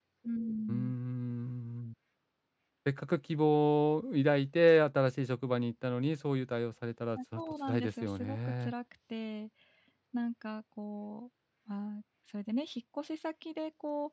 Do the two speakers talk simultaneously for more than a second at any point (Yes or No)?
Yes